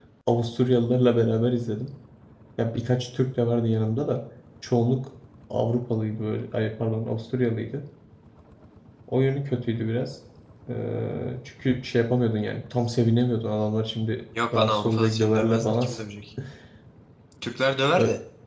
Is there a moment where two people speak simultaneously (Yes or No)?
Yes